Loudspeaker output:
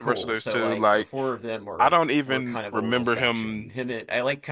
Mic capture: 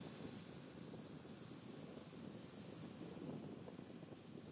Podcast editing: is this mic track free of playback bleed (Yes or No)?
Yes